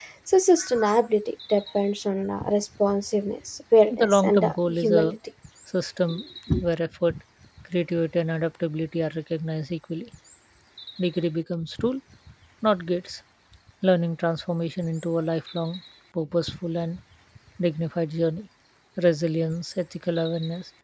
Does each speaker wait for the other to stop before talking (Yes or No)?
No